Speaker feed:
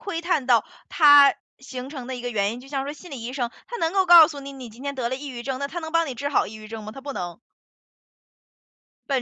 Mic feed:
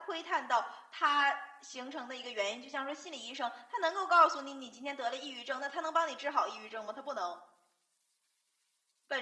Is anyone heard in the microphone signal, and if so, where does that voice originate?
echo only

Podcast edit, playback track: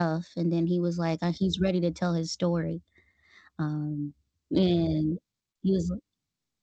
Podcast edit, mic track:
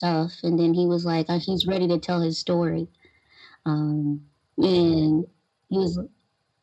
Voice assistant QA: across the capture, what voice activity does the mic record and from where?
echo only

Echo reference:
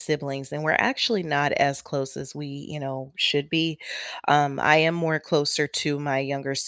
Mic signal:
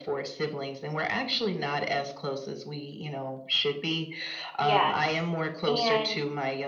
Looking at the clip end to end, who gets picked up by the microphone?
both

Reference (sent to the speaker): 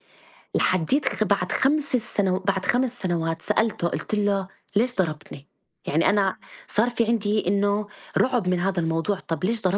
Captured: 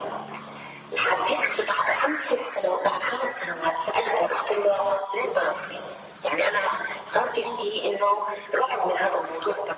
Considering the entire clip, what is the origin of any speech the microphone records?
echo only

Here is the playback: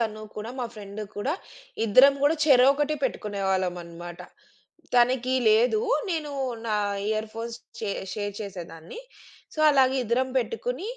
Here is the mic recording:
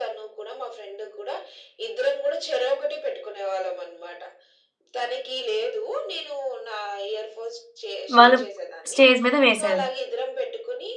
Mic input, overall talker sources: both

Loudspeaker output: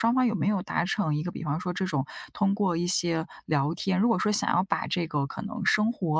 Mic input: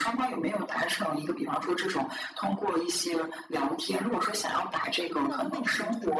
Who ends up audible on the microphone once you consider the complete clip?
both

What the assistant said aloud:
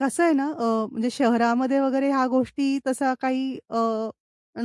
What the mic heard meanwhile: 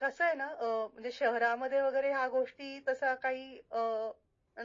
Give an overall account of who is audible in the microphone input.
echo only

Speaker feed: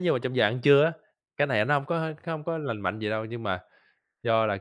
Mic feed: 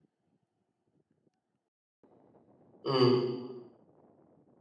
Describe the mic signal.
user only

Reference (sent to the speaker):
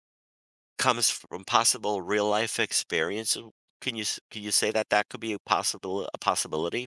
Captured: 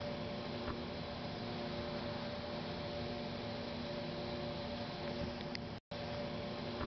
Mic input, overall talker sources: neither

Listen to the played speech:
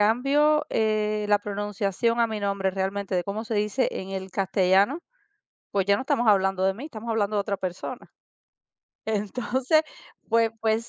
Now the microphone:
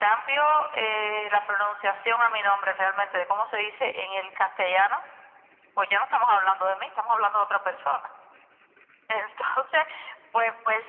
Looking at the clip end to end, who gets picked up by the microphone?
echo only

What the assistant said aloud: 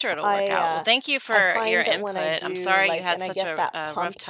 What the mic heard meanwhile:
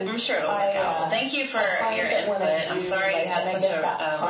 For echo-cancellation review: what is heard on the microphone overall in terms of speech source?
echo only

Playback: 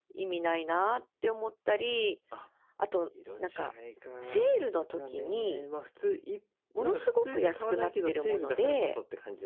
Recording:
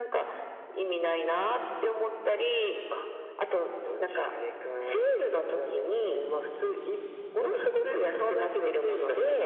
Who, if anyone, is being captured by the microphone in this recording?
echo only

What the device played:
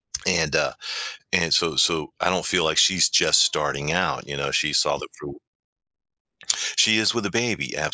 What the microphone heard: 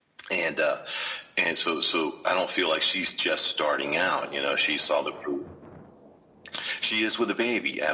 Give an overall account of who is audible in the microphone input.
echo only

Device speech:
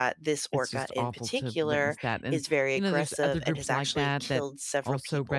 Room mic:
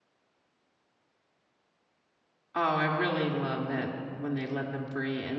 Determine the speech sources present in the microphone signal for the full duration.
user only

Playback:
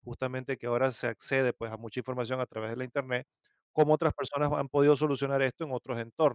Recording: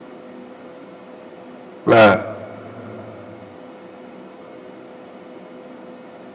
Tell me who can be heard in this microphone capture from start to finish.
user only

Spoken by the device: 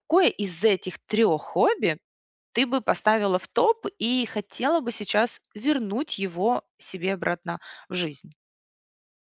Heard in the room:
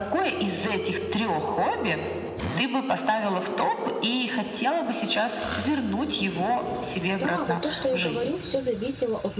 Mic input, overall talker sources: both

